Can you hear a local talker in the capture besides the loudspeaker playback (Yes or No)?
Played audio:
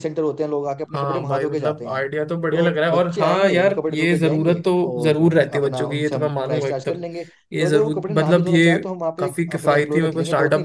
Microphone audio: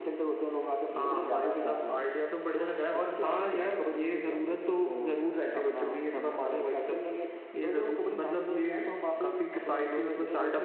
Yes